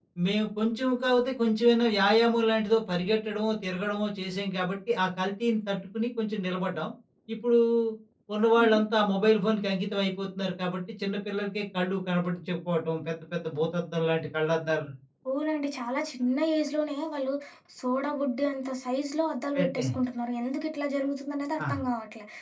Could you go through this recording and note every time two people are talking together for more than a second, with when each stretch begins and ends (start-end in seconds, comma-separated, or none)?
none